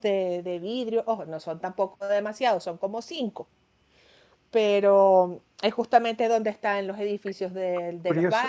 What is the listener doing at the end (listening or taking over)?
taking over